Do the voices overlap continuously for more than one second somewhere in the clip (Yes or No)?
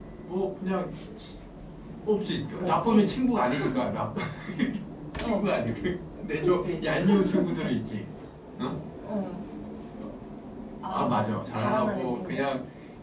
Yes